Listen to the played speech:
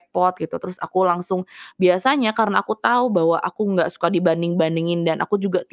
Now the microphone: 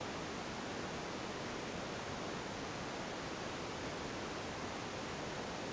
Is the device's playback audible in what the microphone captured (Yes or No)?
No